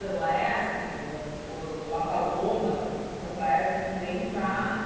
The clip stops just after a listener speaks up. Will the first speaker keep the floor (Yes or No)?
Yes